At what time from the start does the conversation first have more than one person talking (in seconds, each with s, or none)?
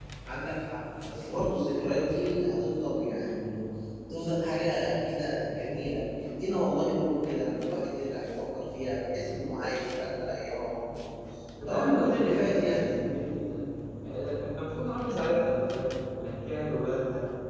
11.7 s